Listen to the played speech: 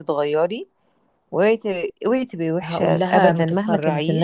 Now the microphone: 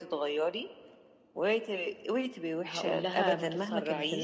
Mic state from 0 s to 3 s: echo only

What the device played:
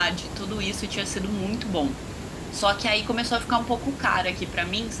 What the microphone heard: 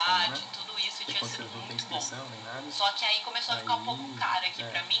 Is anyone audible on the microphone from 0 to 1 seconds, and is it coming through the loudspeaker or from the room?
both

